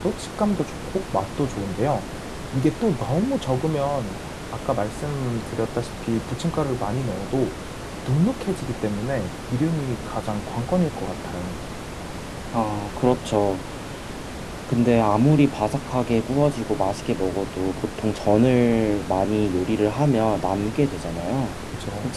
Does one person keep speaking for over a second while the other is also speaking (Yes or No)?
No